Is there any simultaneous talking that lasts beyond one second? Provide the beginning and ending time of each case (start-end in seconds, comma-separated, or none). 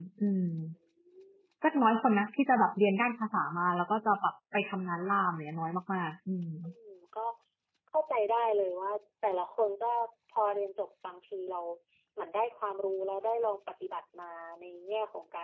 none